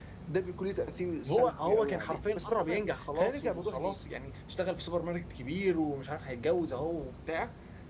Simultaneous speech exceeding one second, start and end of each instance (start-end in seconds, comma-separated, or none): 1.3-3.9